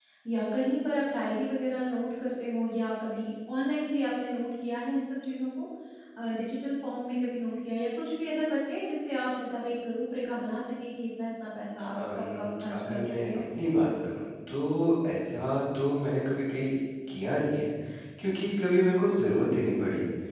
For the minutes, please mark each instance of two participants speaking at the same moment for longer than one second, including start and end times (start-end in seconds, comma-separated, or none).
11.9-13.3